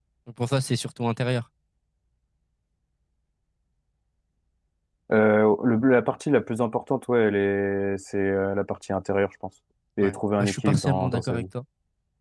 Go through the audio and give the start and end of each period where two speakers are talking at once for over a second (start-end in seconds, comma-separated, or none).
10.0-11.4